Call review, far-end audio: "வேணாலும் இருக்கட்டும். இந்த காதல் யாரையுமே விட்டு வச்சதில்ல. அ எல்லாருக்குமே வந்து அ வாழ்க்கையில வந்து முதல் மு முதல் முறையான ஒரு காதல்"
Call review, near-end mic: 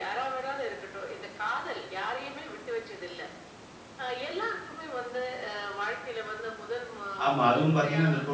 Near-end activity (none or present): present